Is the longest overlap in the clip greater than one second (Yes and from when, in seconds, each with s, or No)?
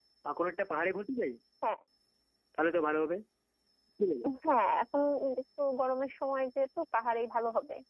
No